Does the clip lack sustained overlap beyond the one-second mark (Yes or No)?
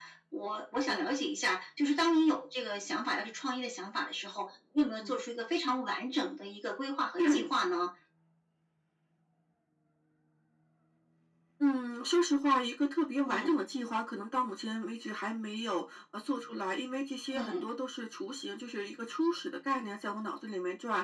Yes